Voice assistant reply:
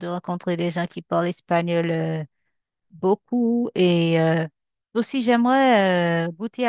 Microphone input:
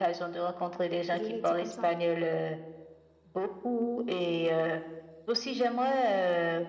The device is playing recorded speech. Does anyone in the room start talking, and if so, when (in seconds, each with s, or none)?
1.1 s